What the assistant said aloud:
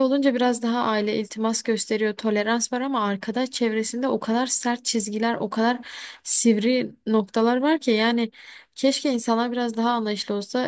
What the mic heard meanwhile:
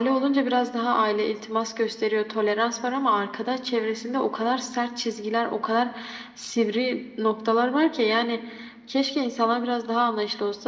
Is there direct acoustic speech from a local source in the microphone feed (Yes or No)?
No